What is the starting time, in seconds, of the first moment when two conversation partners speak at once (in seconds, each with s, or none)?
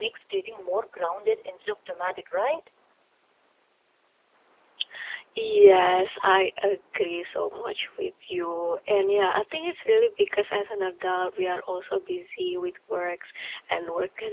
none